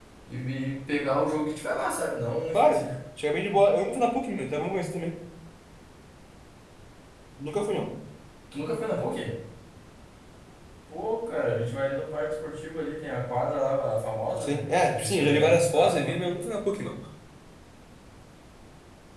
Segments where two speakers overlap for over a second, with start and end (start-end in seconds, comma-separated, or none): 14.4-16.2